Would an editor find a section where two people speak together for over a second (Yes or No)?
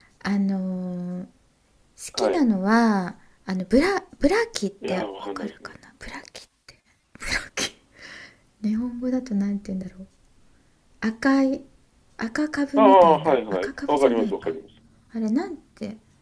Yes